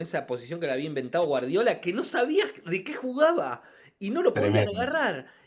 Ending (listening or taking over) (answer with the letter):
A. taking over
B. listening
B